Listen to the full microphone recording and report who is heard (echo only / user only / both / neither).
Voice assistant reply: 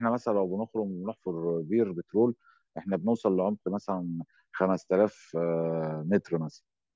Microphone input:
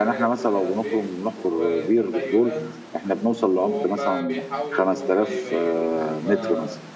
both